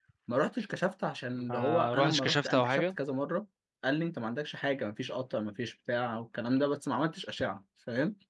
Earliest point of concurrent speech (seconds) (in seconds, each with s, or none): 1.3 s